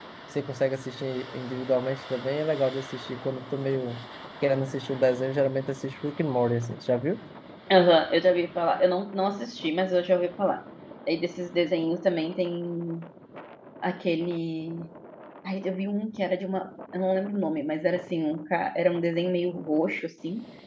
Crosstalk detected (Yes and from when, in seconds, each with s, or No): No